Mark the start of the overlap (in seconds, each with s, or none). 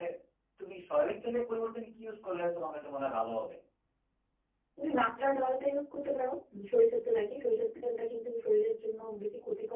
none